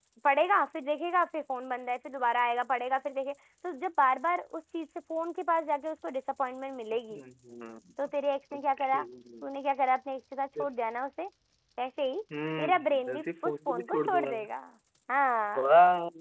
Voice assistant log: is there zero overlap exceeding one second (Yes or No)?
No